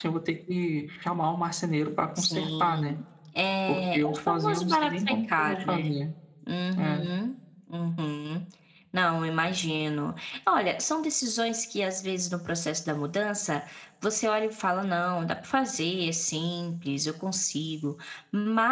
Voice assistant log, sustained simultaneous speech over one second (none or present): present